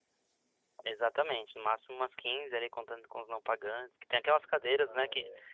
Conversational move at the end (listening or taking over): listening